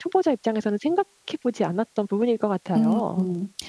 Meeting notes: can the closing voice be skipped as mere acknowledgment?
No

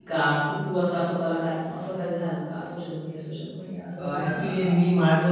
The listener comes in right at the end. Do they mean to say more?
Yes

